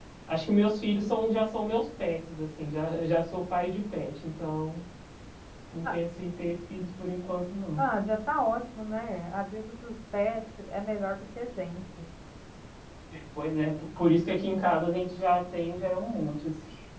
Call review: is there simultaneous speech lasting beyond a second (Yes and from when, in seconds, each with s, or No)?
No